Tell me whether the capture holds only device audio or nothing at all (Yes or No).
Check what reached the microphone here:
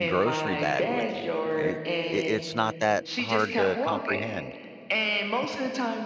No